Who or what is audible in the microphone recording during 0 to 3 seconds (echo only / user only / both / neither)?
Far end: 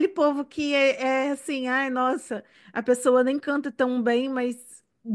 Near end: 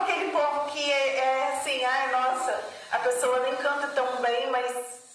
echo only